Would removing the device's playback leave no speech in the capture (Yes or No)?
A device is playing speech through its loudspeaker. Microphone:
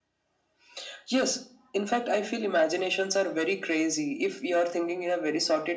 Yes